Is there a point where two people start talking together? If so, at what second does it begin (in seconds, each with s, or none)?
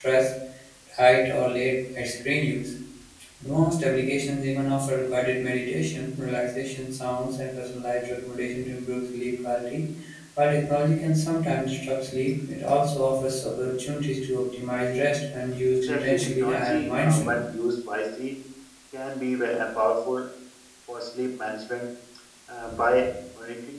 15.8 s